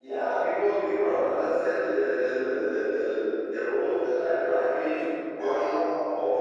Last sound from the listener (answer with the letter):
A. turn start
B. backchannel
B